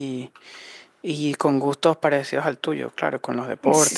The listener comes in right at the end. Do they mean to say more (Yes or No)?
Yes